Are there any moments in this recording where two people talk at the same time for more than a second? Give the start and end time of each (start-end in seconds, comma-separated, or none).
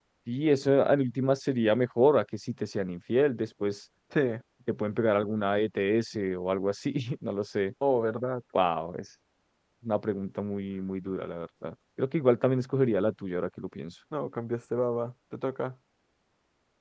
none